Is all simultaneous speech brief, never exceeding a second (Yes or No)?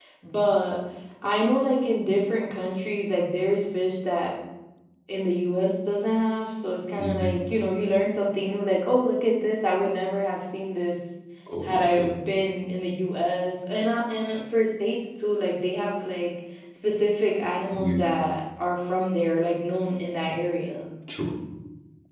Yes